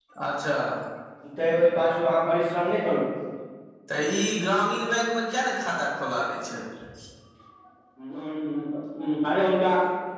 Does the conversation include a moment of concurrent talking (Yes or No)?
No